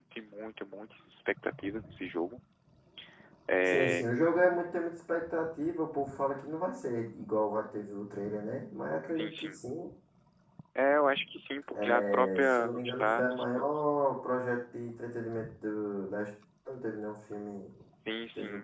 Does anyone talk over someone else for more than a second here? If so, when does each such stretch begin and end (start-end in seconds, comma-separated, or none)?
11.8-13.6